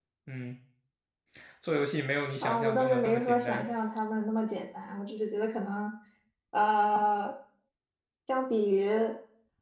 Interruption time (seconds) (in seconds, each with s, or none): 2.4 s